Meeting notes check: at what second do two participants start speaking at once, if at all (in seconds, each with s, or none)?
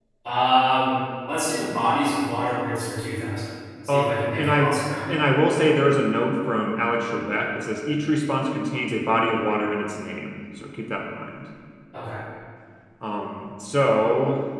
3.9 s